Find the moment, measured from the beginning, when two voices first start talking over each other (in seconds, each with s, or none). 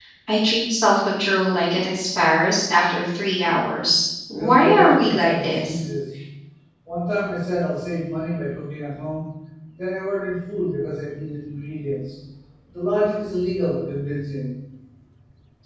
4.3 s